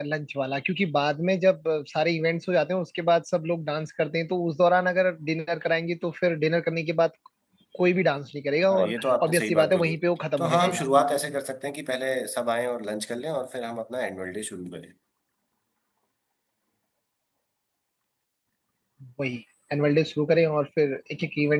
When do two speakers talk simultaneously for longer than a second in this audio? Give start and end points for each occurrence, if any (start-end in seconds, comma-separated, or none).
8.7-9.9